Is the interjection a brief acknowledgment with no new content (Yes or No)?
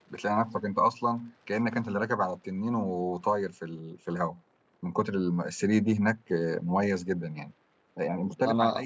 Yes